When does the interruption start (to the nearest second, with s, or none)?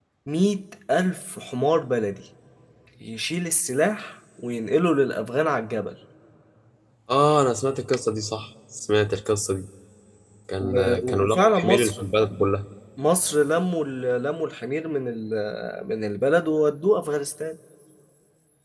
11 s